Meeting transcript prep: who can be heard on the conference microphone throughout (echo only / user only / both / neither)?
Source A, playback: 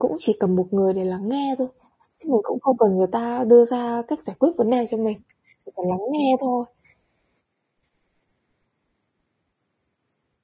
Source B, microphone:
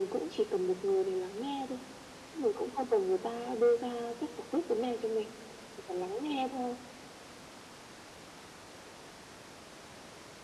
echo only